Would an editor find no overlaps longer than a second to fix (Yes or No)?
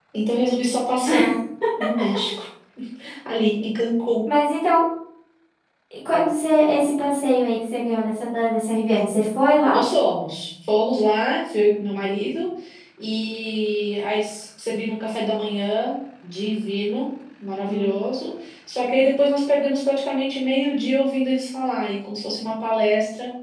Yes